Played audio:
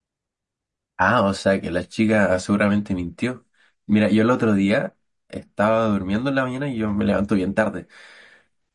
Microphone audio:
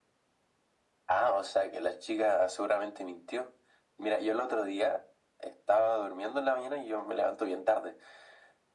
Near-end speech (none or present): none